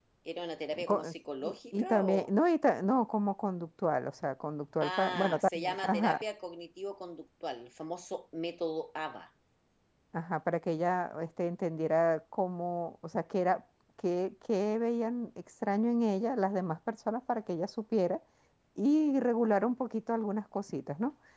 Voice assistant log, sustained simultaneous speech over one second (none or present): present